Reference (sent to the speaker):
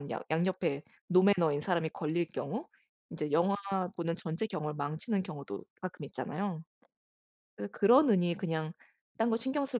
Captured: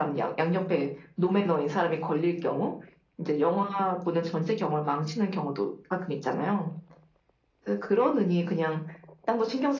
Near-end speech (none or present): none